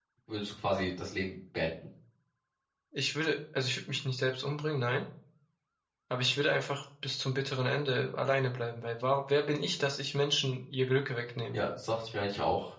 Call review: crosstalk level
none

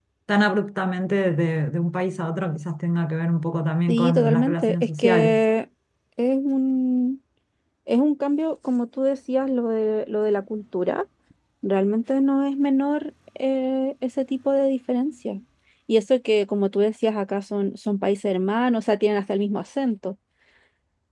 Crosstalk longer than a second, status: present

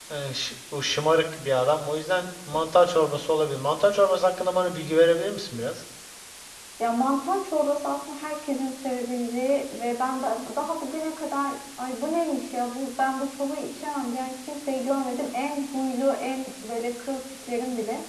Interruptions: none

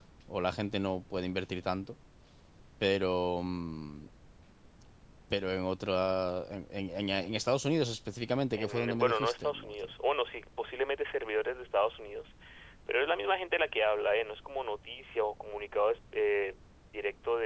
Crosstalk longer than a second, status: present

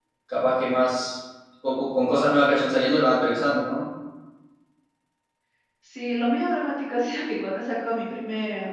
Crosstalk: none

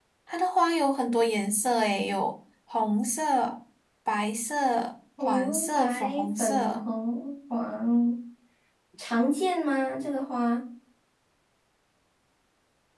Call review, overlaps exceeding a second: present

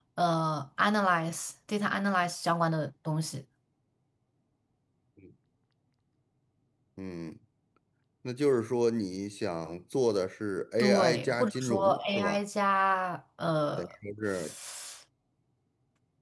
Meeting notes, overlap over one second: present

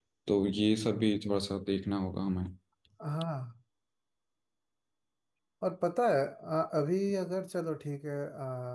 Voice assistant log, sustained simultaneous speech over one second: none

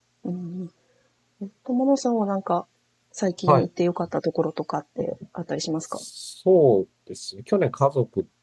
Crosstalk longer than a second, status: none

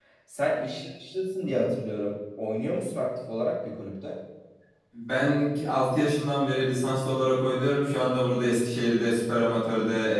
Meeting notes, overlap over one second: none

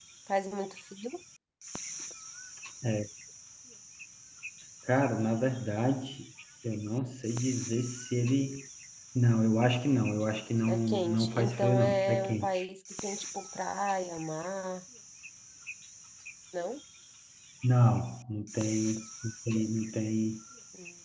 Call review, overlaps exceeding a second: present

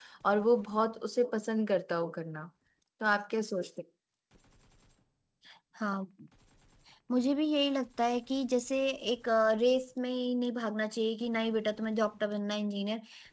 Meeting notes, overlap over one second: none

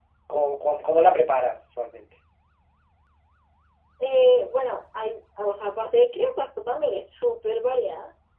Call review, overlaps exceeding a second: none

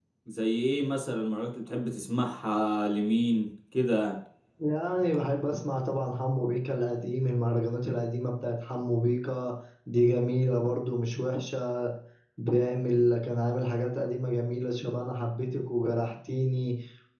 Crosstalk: none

